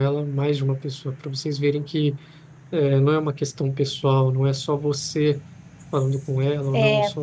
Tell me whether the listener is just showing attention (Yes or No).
Yes